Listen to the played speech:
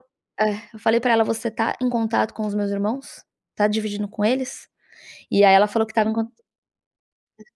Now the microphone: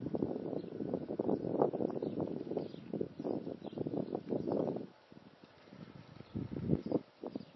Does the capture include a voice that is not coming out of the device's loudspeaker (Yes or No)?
No